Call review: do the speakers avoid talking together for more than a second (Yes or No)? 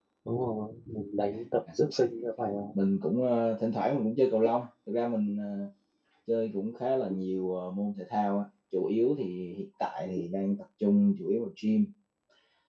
Yes